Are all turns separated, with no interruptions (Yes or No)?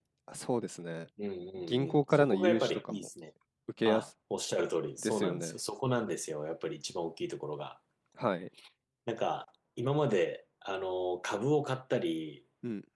No